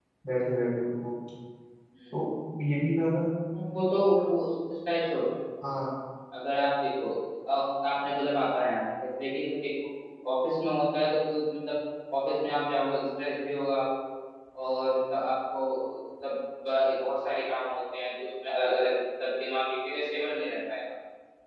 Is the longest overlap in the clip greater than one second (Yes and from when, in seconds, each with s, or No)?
No